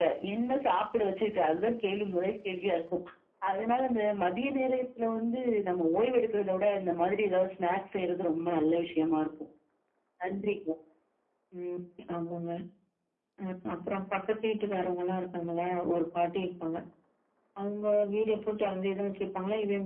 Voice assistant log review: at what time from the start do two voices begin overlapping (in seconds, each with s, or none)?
none